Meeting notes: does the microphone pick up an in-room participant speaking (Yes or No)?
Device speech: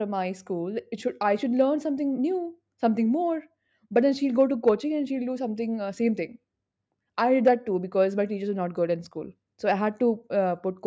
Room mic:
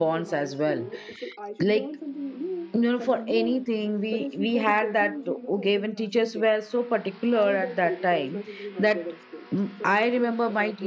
Yes